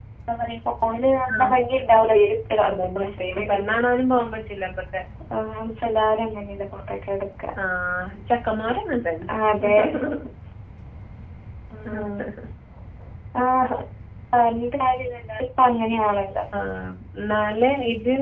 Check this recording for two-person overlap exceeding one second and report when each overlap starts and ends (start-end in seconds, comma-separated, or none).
none